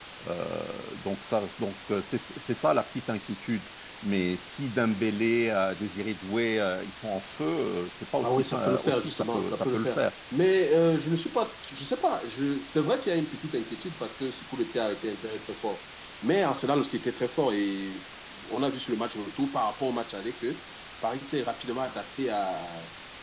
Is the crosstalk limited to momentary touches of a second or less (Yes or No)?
No